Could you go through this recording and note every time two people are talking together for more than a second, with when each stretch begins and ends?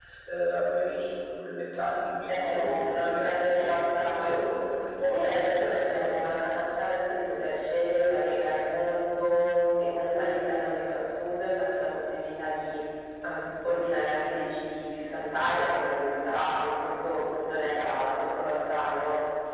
2.3-3.7, 5.1-6.4

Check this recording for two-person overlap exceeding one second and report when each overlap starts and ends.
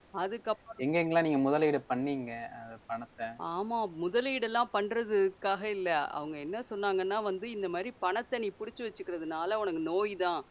none

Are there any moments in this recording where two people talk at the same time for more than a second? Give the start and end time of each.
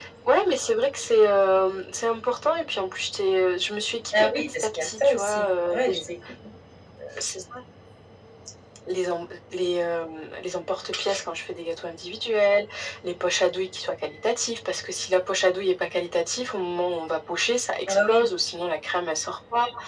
4.2-6.0

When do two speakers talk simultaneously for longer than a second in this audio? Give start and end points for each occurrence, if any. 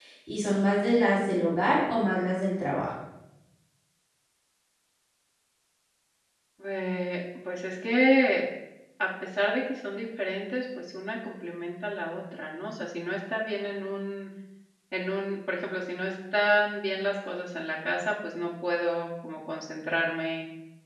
none

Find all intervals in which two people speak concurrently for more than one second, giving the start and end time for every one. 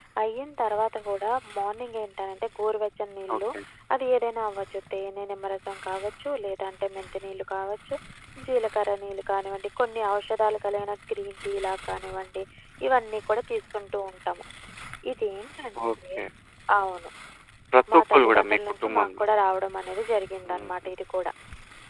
17.9-19.2

